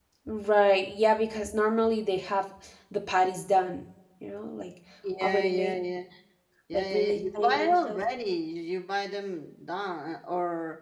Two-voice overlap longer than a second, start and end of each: 6.7-8.0

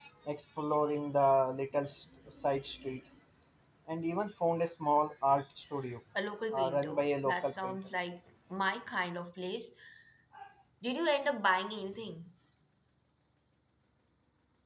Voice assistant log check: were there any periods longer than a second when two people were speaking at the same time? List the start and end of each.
6.5-7.8

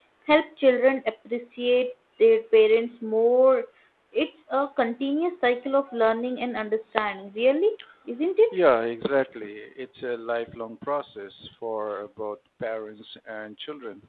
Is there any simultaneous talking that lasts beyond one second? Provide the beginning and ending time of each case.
none

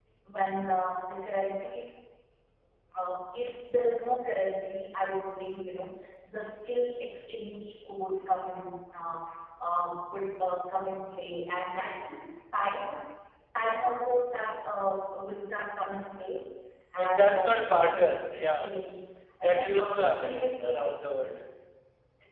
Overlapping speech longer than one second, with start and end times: 17.0-18.7, 19.4-20.8

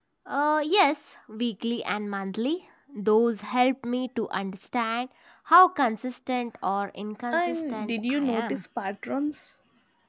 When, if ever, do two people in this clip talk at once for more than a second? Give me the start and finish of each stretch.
7.3-8.6

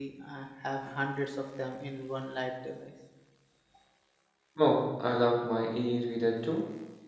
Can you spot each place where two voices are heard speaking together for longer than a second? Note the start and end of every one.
none

